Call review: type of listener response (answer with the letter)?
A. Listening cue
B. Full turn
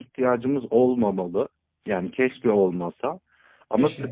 A